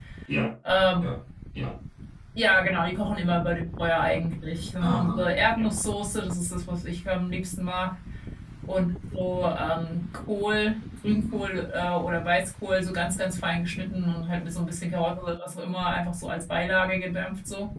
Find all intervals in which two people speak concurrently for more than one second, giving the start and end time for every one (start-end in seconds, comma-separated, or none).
none